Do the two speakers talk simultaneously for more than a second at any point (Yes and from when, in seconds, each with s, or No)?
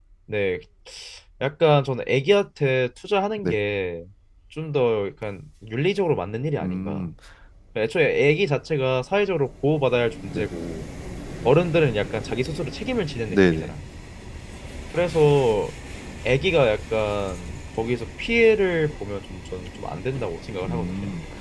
No